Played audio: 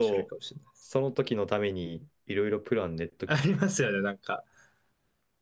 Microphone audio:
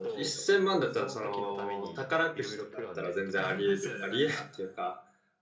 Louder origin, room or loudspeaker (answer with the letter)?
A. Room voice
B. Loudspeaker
A